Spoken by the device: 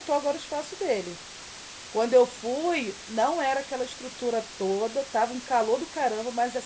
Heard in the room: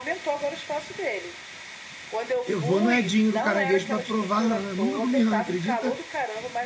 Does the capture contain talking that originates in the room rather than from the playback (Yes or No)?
Yes